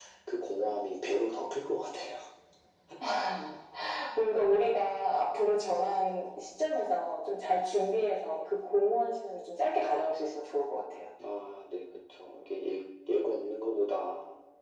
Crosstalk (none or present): none